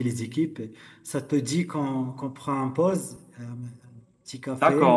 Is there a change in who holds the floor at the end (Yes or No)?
Yes